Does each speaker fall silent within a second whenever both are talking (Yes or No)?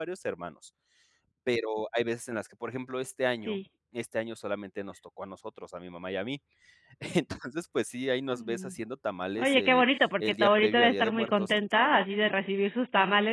No